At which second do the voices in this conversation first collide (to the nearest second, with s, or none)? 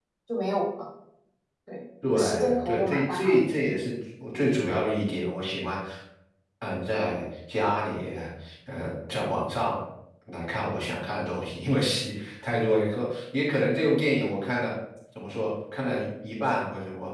2 s